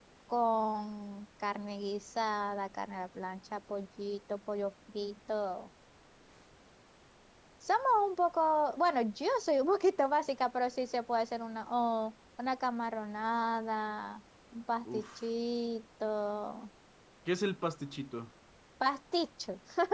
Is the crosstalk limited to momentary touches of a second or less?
Yes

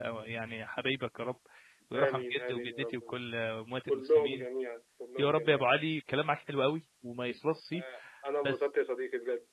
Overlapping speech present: Yes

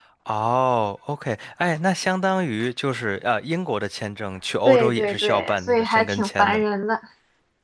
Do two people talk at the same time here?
Yes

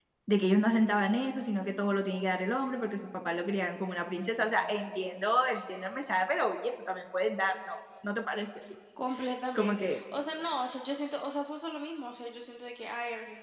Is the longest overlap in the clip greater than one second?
No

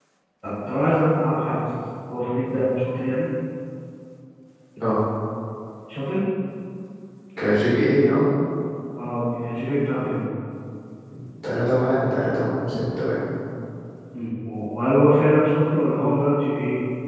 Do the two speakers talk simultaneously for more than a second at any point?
No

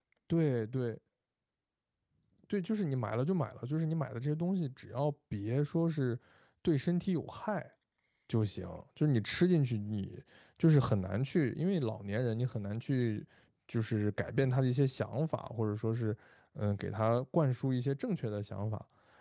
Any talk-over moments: No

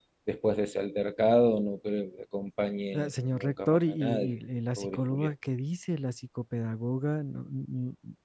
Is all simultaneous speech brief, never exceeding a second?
No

